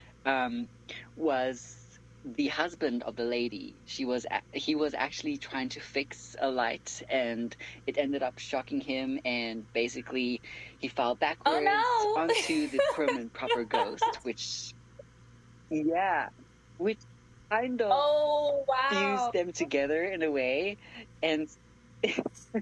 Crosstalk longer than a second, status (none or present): present